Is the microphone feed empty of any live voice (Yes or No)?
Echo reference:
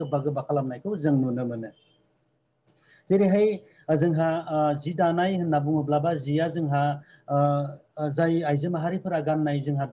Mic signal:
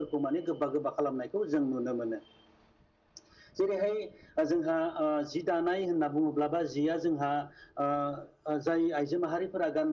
Yes